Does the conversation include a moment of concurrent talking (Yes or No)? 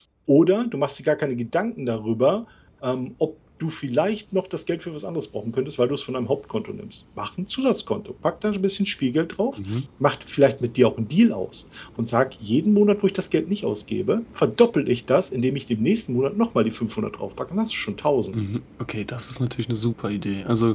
No